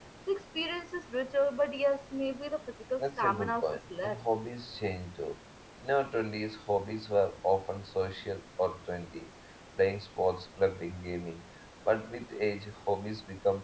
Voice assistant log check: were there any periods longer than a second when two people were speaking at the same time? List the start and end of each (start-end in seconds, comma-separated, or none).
3.0-4.2